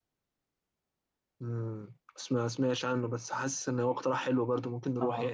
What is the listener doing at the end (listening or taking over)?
taking over